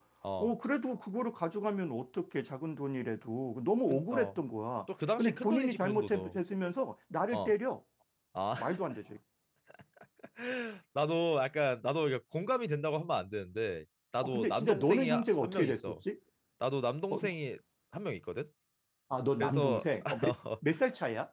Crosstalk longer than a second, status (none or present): present